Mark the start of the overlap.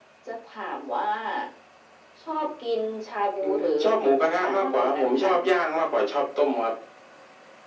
3.4 s

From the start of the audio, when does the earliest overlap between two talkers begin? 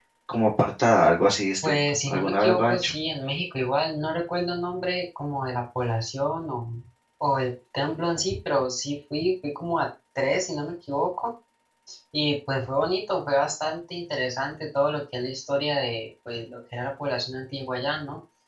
1.6 s

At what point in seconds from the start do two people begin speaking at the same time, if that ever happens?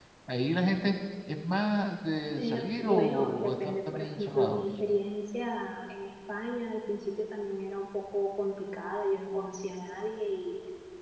2.3 s

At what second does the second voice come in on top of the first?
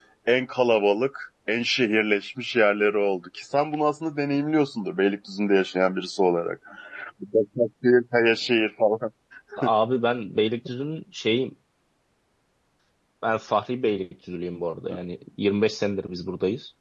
none

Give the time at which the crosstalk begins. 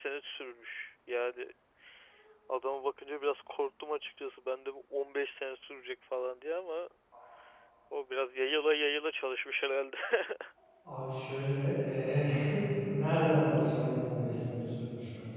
none

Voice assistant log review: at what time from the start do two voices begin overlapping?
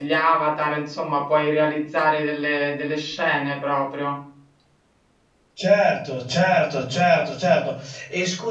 none

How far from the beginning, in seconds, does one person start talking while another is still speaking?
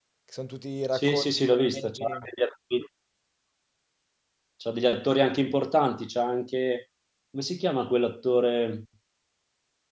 0.9 s

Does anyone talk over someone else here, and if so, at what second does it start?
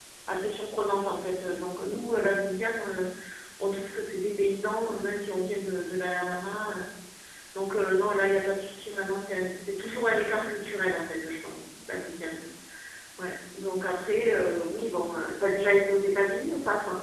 none

